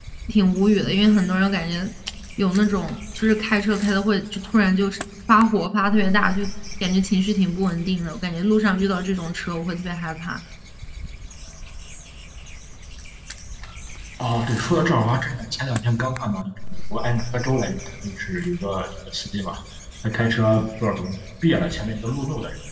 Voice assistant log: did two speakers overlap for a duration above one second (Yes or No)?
No